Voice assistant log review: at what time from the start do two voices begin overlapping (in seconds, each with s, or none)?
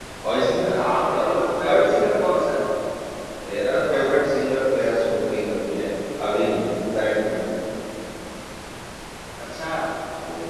0.8 s